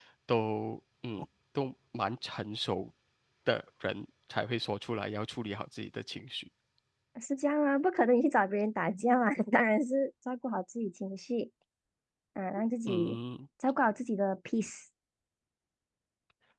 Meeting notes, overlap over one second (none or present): none